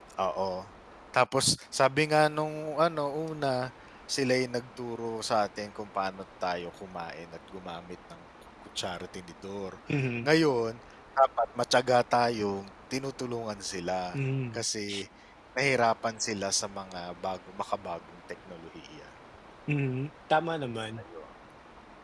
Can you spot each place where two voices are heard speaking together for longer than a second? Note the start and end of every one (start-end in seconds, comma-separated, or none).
none